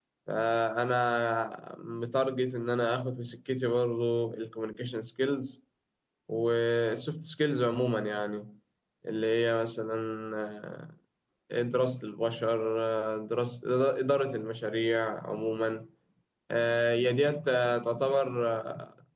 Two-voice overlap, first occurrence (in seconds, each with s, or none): none